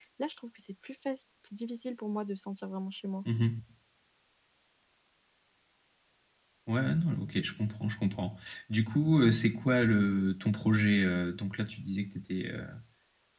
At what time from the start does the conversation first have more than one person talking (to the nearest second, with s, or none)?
none